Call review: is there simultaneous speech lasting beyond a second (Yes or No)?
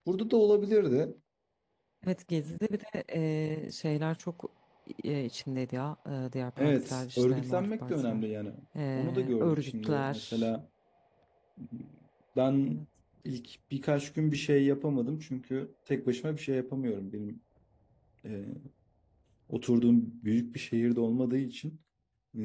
Yes